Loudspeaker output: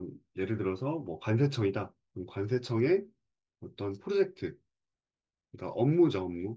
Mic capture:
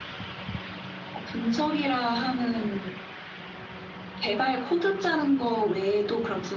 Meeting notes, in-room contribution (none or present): present